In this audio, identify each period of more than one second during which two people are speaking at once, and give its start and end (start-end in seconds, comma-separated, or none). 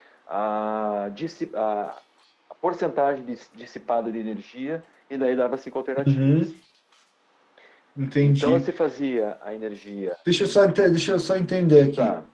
none